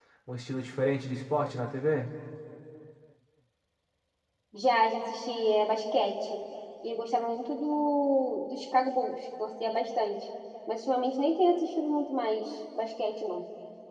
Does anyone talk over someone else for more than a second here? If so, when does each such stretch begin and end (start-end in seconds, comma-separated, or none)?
none